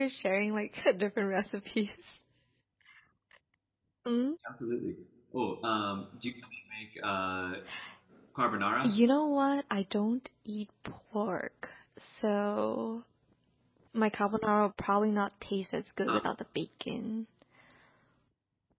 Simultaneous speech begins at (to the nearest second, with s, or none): none